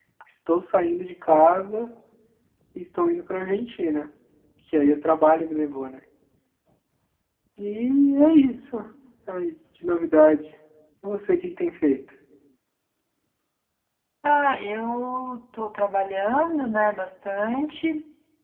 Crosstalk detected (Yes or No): No